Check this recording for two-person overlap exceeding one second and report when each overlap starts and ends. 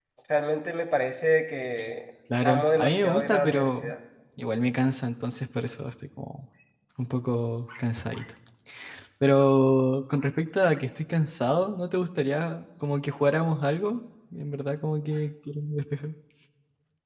2.4-3.9

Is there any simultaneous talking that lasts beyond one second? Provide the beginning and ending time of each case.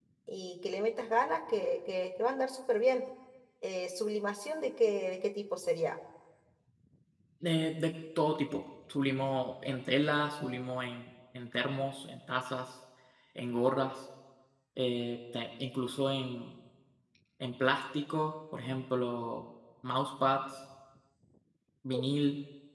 none

